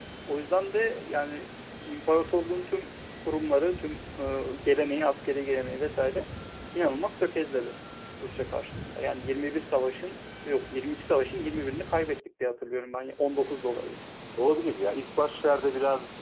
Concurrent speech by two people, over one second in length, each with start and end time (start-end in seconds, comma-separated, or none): none